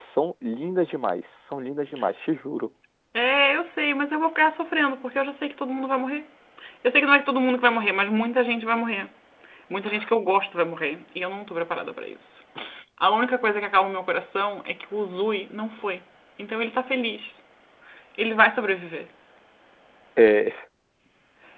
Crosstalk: none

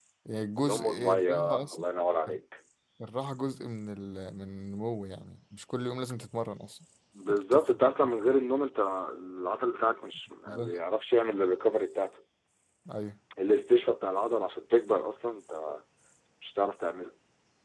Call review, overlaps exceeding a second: present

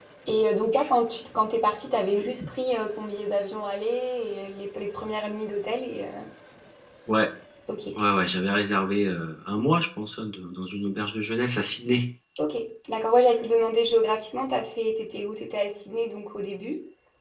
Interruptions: none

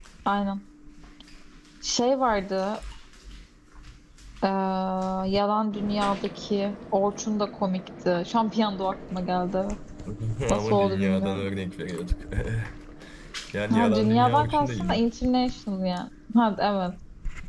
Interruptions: present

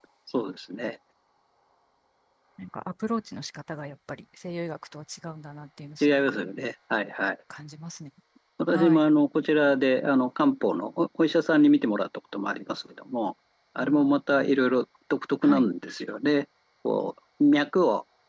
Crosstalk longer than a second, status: none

